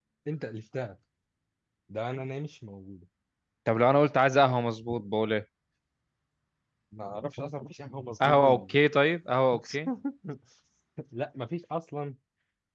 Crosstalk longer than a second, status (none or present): none